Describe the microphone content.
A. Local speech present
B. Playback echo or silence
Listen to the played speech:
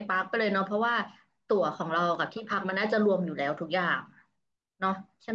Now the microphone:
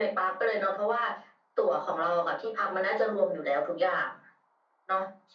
B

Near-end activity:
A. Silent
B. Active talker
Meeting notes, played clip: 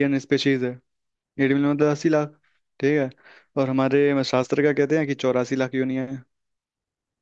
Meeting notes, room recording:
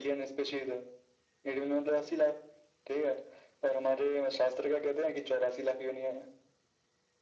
A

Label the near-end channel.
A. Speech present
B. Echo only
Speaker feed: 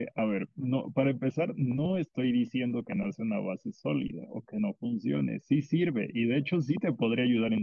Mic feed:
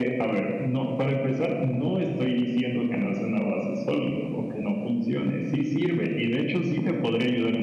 B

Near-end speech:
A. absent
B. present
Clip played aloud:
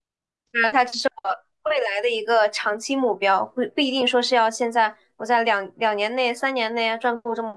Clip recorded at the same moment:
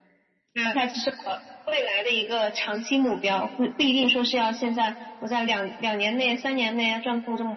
A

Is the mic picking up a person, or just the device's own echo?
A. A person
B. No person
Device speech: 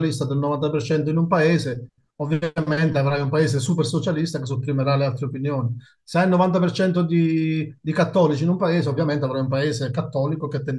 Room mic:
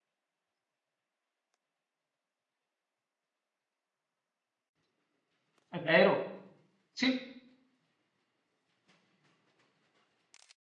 A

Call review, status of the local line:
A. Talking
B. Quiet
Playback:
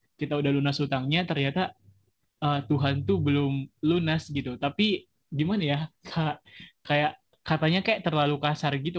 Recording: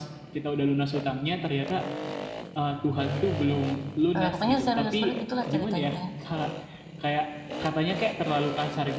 A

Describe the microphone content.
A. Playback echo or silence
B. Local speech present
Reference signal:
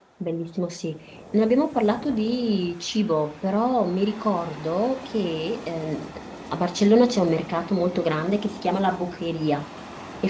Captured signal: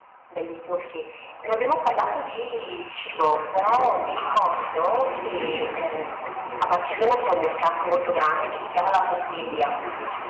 B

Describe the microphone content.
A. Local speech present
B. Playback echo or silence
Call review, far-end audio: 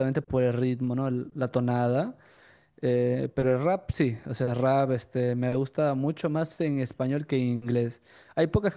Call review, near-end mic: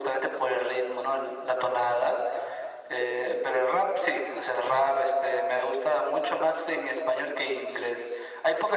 B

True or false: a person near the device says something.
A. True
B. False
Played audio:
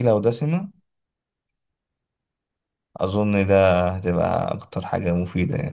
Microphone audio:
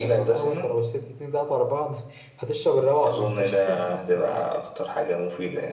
A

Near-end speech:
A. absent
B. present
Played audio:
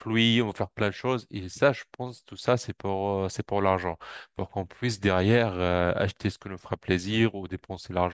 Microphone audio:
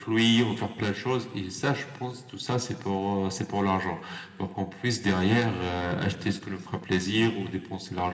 A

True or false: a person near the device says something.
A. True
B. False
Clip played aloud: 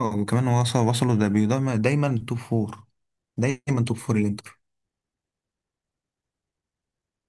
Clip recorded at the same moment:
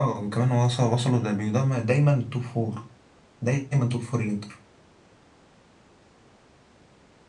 B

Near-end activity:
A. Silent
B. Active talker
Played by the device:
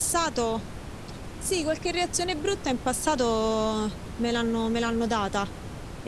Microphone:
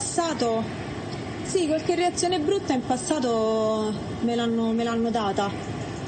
A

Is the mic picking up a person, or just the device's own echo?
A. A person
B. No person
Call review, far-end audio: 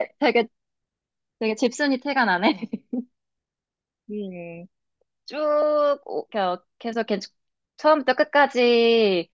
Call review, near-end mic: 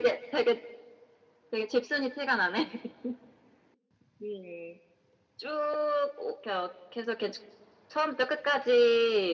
B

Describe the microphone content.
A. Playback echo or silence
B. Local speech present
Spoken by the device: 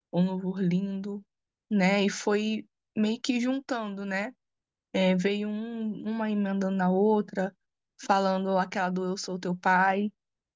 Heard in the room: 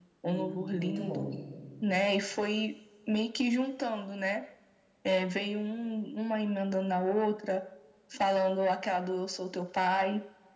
B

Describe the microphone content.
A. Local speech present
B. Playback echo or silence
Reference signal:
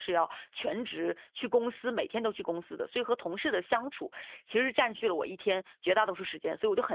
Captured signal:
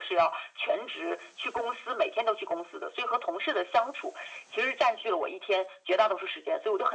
B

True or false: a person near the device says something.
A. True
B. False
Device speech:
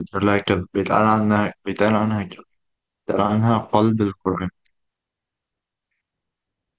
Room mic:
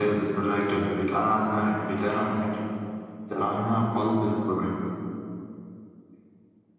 B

